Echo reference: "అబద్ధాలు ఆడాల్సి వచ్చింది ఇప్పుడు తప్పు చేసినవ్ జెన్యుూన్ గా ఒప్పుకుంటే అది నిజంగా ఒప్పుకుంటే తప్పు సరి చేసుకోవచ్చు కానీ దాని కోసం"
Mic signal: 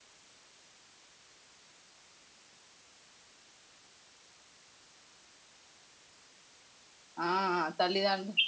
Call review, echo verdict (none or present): none